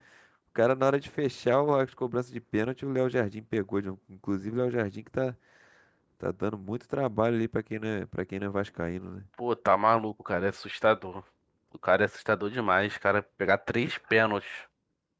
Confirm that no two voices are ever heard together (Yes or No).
Yes